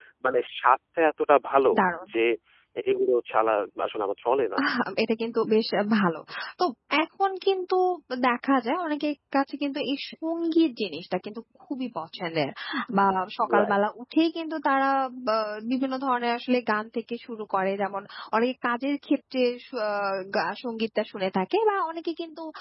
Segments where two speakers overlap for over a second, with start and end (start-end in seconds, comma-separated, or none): none